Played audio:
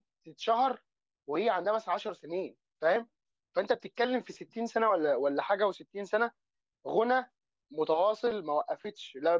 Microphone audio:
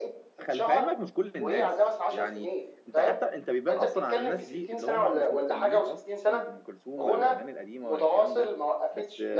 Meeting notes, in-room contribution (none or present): present